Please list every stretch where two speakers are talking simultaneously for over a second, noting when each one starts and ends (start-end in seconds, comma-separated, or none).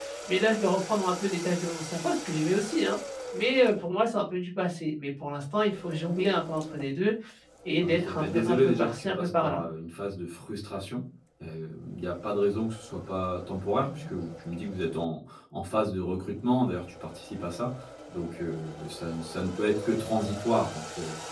7.8-9.6